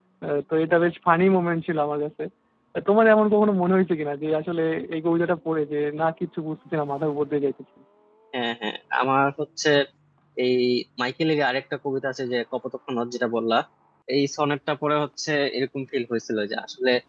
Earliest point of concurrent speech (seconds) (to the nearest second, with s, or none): none